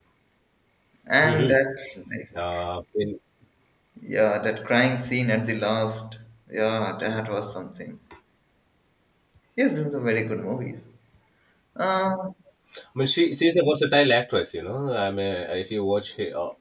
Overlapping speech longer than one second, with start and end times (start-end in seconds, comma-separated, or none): none